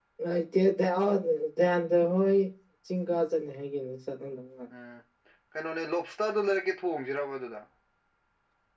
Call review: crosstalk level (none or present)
none